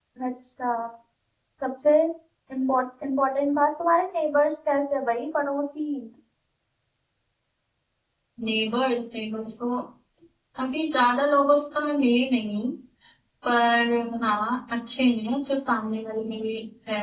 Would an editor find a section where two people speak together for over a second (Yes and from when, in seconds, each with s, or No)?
No